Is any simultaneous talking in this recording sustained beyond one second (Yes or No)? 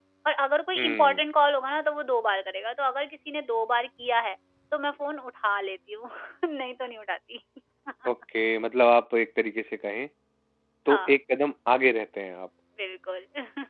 No